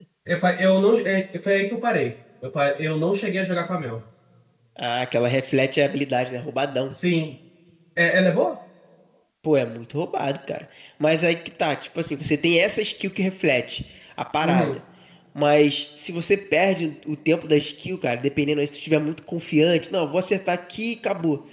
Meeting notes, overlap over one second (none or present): none